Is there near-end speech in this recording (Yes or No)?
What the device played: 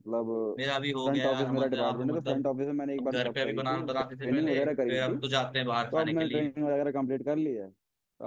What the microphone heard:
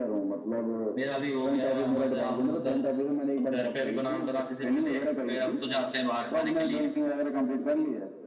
No